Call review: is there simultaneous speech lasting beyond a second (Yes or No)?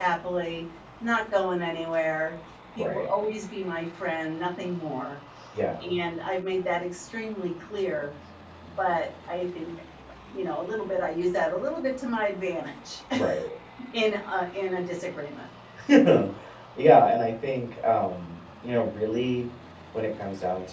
No